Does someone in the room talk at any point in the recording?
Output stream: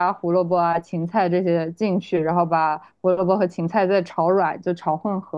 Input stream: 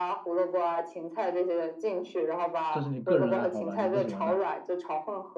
Yes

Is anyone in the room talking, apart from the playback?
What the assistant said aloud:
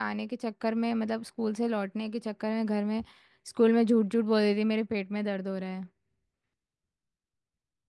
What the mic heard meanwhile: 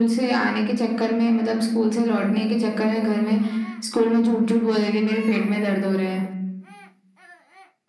No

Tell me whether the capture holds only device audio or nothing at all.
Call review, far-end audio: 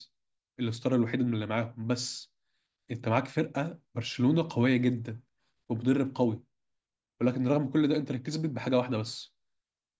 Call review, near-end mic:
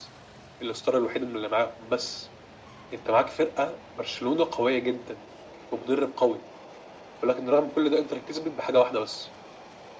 Yes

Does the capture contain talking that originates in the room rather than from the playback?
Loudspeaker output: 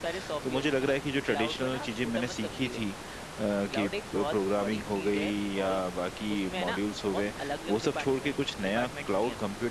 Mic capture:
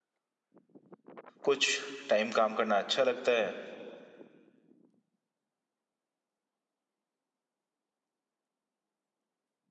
Yes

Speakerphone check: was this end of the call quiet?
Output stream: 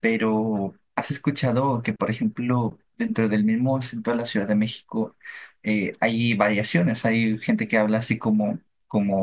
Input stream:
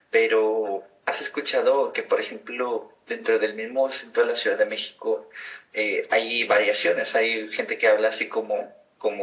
Yes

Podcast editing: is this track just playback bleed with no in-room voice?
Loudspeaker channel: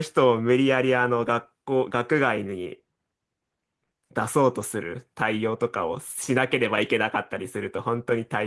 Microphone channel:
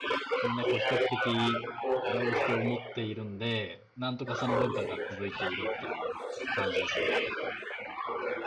No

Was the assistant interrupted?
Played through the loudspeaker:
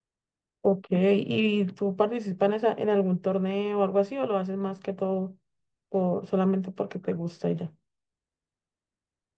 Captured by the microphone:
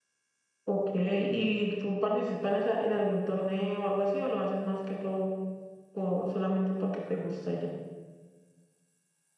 No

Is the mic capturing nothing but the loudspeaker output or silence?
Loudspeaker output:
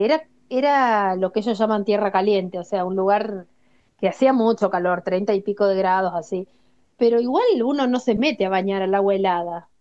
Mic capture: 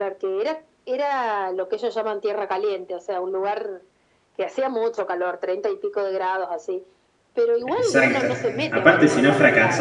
No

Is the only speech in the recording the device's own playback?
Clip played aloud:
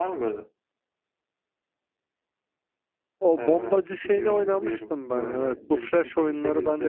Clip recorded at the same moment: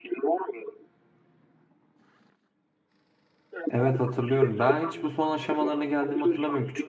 No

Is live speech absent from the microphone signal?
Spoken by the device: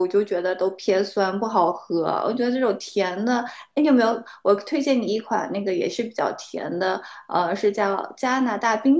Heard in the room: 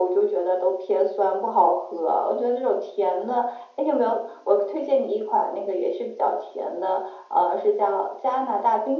Yes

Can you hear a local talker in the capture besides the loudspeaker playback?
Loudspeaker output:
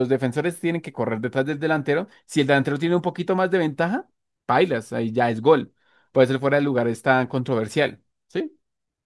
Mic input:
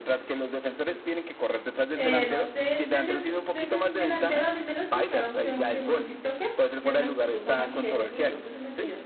Yes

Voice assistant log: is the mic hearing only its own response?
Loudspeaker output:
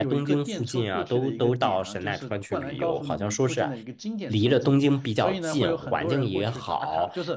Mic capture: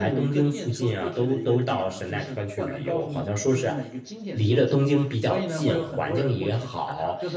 Yes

